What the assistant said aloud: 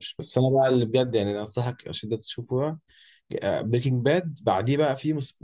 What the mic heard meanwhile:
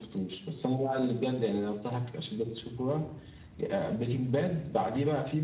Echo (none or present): present